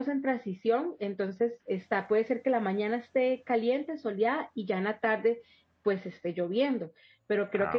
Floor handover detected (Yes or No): No